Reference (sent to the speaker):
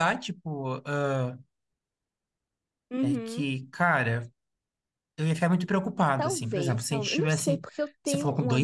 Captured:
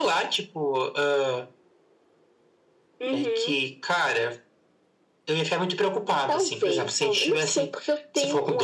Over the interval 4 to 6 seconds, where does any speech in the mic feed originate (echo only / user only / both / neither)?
echo only